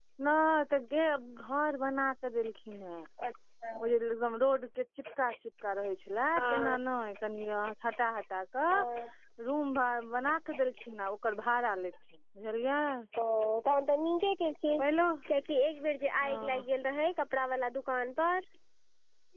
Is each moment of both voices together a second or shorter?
Yes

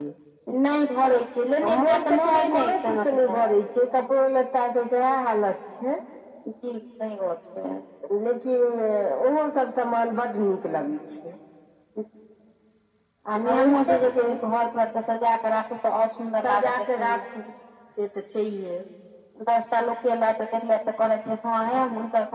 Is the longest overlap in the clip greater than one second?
Yes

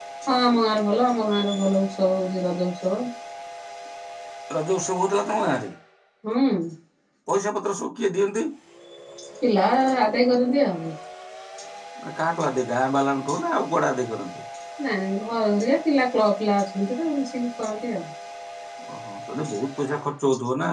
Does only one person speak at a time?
Yes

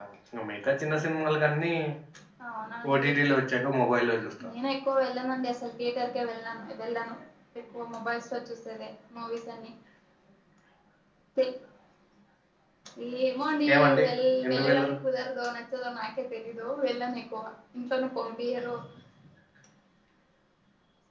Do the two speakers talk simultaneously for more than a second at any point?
No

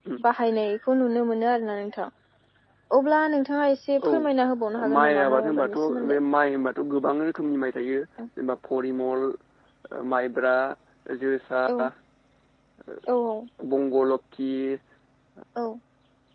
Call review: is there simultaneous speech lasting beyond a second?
Yes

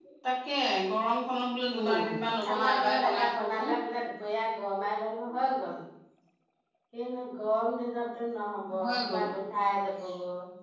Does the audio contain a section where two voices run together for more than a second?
Yes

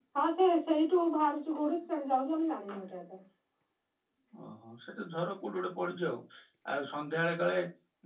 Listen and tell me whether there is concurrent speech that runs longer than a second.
No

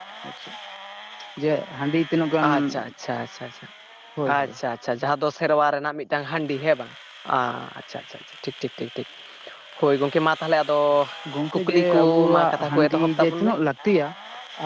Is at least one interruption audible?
Yes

